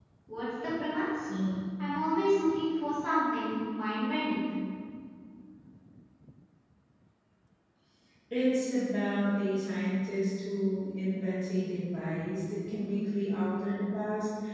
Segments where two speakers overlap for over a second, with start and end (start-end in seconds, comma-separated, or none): none